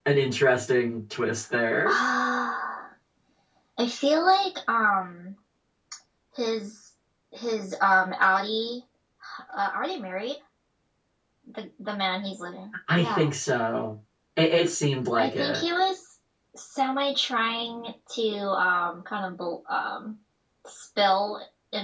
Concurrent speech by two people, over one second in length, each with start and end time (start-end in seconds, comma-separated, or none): none